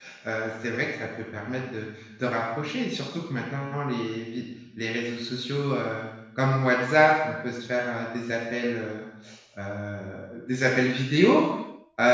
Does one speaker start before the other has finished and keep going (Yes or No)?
No